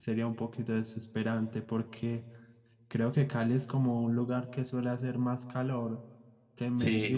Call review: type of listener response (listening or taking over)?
taking over